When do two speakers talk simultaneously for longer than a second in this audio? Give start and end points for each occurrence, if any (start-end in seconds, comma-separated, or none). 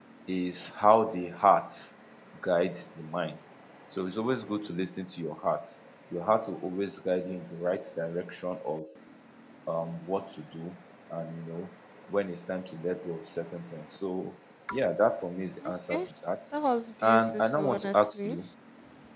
17.0-18.4